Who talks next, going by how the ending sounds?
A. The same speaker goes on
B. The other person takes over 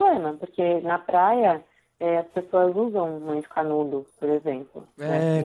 B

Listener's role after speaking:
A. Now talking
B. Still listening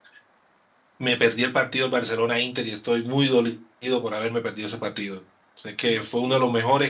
B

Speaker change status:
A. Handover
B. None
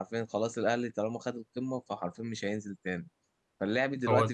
B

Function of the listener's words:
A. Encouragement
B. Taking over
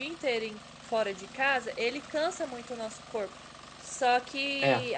A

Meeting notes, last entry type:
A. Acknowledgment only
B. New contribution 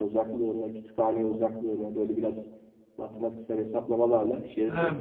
B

